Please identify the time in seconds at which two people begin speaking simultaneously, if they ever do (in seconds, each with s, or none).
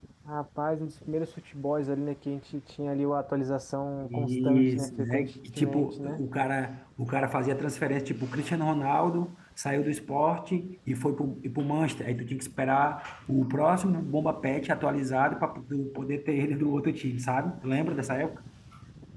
4.0 s